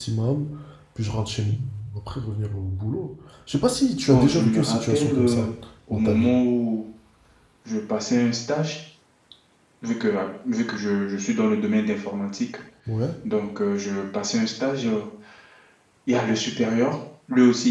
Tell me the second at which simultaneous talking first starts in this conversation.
4.1 s

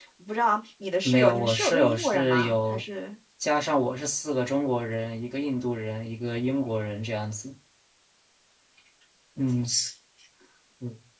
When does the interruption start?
1.0 s

